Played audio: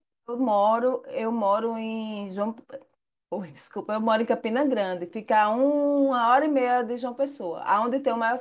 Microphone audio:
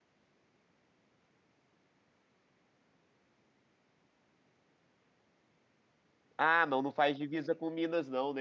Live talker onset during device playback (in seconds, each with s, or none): 6.4 s